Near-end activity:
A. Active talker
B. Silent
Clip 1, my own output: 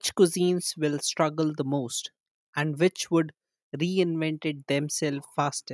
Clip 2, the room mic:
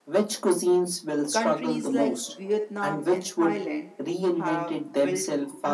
A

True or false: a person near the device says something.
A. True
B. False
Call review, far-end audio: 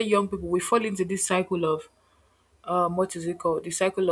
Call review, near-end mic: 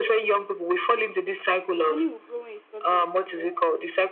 A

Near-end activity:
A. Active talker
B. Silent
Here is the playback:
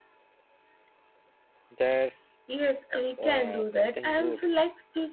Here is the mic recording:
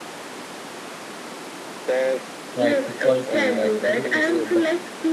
A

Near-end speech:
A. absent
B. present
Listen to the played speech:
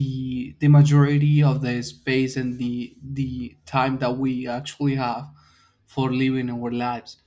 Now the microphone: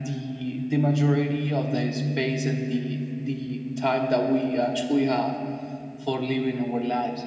A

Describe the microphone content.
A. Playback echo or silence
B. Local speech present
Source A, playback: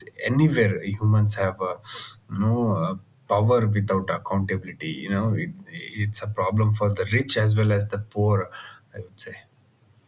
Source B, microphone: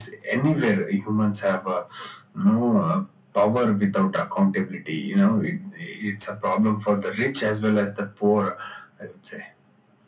A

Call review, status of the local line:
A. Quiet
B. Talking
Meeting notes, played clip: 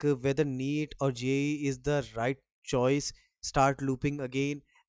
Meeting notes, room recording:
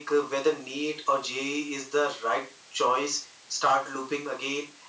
A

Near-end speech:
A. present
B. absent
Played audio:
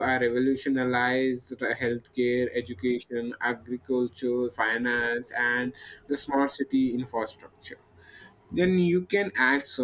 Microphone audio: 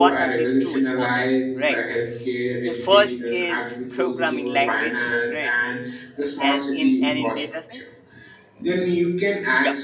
A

